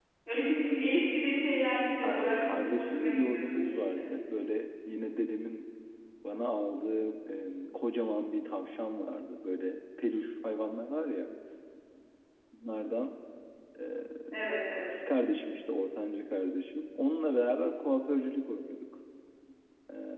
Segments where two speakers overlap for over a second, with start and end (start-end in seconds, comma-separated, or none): 2.0-4.0